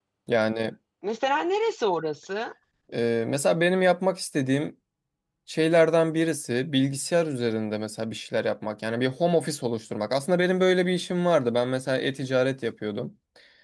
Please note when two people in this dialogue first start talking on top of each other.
none

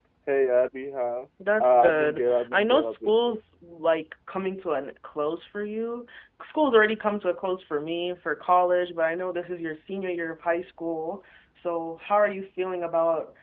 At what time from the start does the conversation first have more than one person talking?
1.4 s

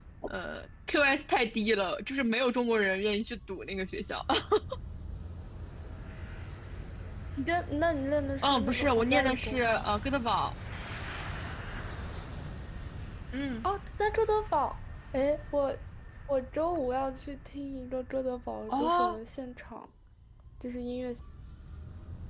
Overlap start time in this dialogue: 8.4 s

